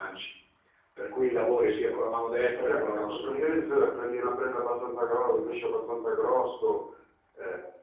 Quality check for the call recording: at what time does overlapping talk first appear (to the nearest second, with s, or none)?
3 s